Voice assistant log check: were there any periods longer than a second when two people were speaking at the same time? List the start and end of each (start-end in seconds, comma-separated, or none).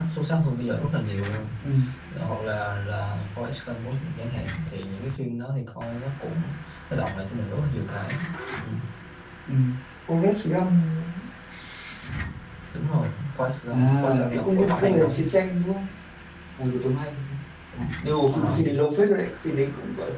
13.7-15.2